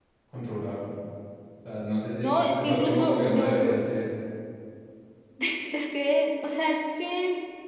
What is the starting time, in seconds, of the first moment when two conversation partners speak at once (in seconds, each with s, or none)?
2.2 s